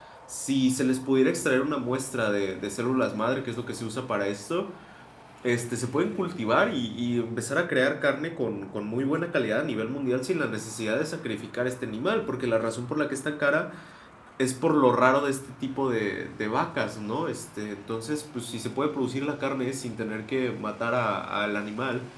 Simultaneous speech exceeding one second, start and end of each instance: none

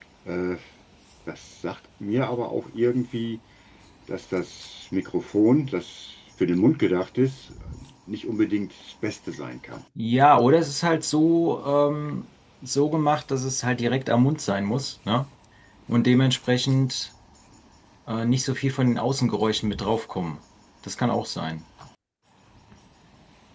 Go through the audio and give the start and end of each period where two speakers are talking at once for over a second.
none

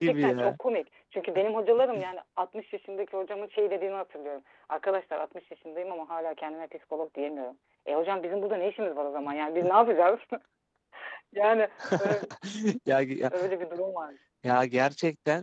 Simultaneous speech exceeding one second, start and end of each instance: none

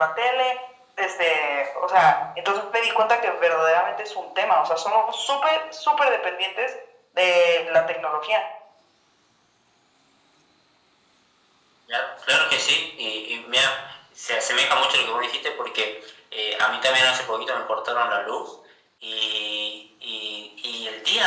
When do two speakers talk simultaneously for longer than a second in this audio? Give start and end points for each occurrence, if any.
none

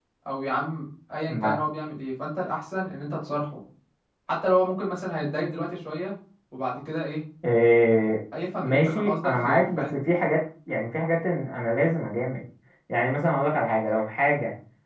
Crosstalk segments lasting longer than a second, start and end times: 8.6-9.9

